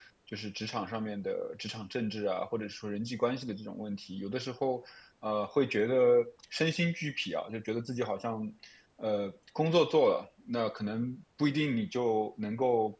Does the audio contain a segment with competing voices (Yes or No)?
No